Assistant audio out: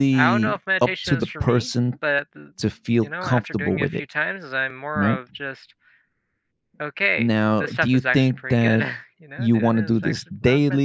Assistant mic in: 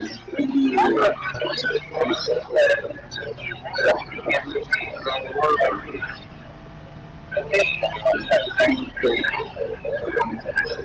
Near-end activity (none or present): none